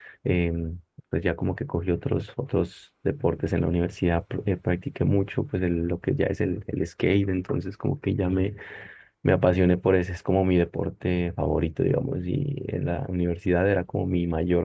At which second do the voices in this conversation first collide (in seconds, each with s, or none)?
none